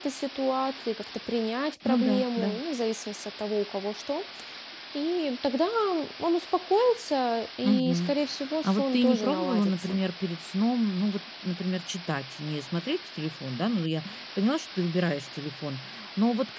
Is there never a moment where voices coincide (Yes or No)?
No